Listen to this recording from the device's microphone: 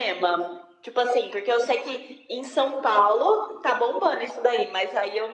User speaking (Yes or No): No